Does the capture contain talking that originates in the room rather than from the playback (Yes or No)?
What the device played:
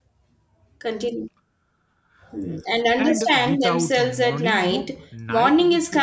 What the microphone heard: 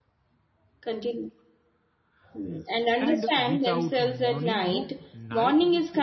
No